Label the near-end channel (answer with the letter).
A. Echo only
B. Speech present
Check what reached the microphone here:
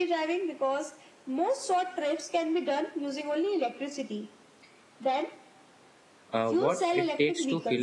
B